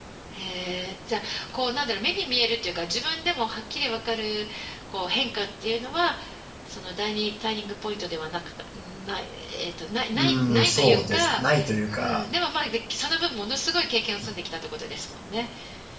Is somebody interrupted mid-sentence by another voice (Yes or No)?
Yes